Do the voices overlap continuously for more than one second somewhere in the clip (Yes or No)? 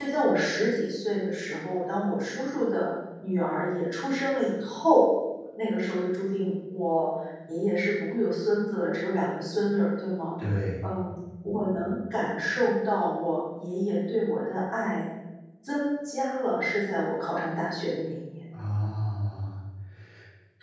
No